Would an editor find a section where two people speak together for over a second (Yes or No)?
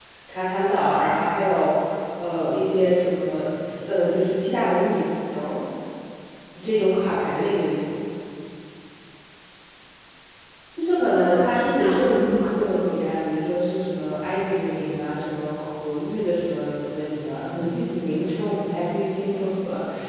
Yes